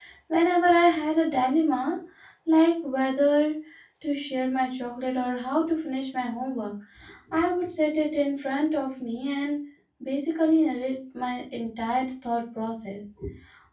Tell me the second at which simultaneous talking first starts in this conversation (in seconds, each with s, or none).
none